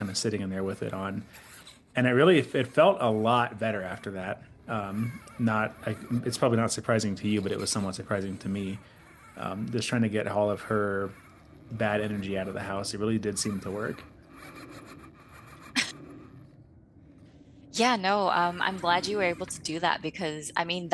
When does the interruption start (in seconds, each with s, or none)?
none